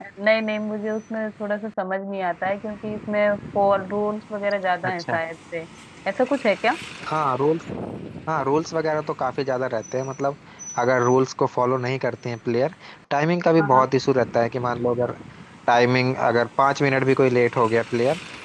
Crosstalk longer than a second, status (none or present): none